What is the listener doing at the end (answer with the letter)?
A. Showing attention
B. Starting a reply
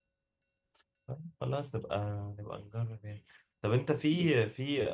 A